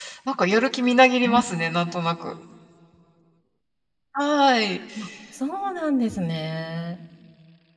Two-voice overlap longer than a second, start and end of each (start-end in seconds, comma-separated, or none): none